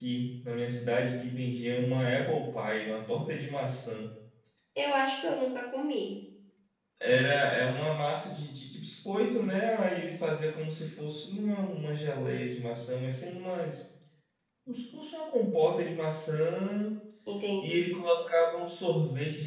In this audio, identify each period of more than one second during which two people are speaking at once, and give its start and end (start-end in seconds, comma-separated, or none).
none